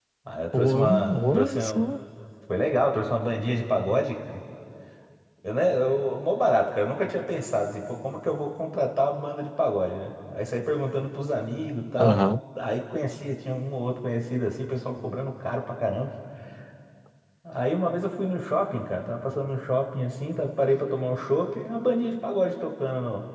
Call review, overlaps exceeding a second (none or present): present